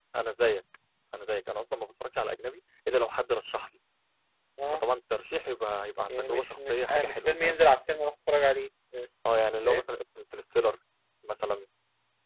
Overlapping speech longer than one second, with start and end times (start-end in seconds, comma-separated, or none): 6.1-7.6